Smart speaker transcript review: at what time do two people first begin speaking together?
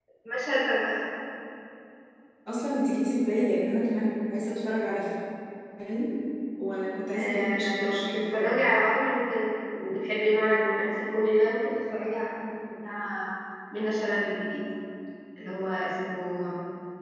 7.1 s

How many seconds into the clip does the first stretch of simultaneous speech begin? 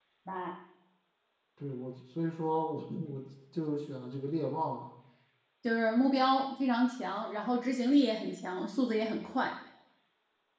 none

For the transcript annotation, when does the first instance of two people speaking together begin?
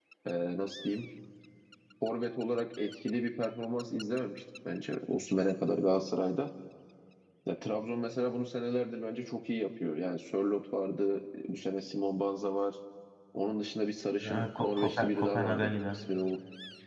14.2 s

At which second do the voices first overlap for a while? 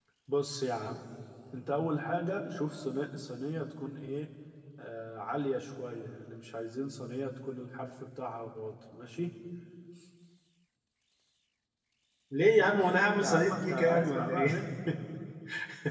13.2 s

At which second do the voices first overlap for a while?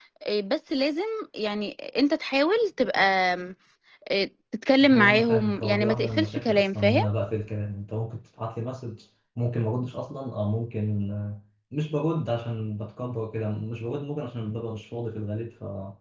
4.8 s

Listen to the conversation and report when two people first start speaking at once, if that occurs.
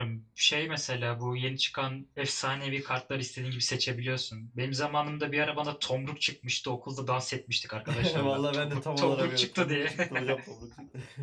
8.0 s

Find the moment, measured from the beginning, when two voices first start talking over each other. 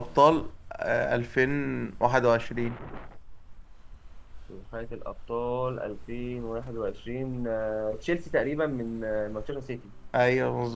none

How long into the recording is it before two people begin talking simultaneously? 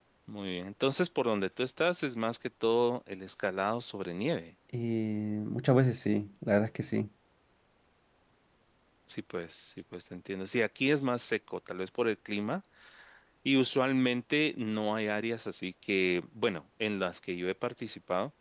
none

